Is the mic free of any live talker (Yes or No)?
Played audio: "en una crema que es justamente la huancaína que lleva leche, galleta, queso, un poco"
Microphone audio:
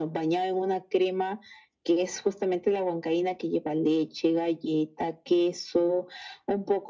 Yes